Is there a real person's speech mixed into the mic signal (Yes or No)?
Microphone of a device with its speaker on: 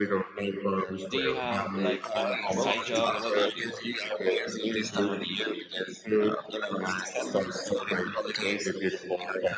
Yes